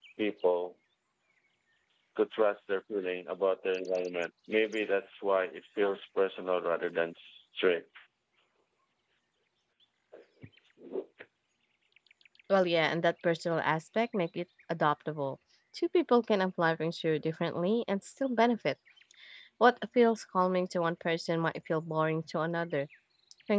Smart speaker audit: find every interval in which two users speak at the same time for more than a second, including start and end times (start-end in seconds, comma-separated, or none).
none